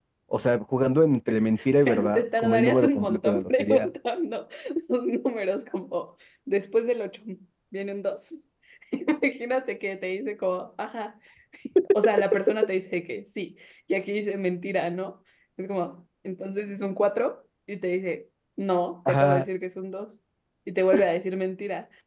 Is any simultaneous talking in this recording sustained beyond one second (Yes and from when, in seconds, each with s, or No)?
Yes, from 1.8 s